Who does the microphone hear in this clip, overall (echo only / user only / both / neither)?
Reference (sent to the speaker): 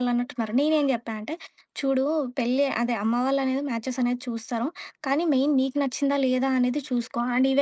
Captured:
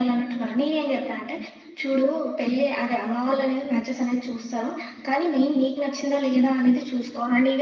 echo only